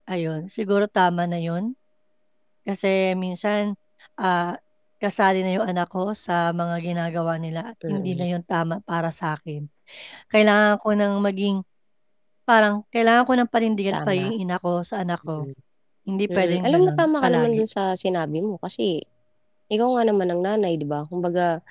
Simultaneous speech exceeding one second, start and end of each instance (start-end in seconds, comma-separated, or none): 16.4-17.6